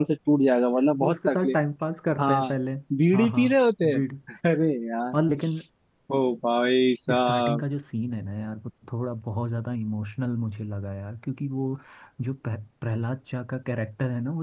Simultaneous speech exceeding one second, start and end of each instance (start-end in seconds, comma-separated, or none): none